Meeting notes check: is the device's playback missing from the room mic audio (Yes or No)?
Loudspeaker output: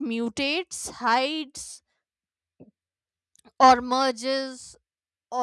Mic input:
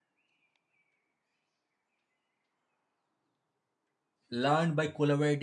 Yes